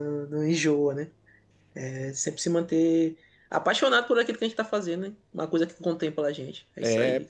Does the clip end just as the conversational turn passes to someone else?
Yes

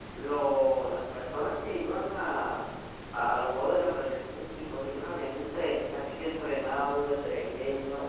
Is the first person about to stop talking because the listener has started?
No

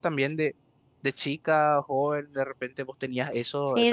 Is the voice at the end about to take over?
Yes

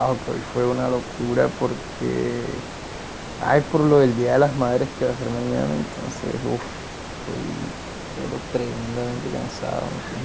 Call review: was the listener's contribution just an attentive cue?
No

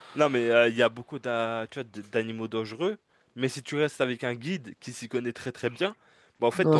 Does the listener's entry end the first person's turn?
Yes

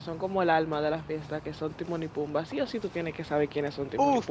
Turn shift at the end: Yes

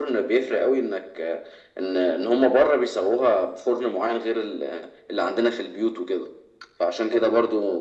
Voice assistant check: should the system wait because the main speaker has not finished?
Yes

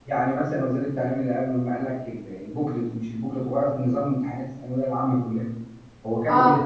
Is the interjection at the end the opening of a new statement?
No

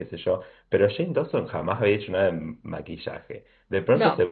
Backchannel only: Yes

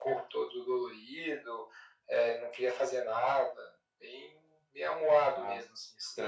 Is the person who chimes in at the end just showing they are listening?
No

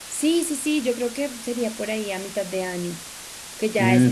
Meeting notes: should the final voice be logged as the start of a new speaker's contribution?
Yes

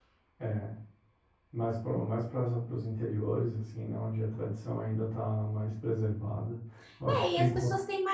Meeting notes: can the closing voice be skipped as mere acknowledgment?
No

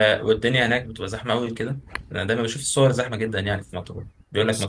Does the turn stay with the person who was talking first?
Yes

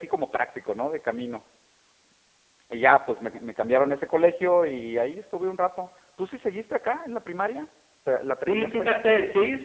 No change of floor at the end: No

